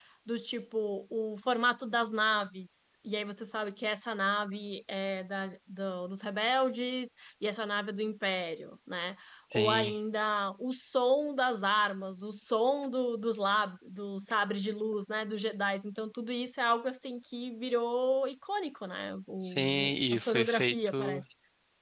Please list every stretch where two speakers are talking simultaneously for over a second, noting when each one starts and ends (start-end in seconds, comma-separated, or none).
19.4-21.2